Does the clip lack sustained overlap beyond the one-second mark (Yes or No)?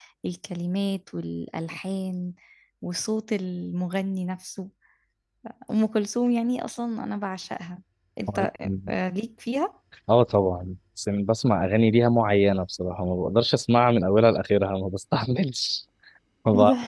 Yes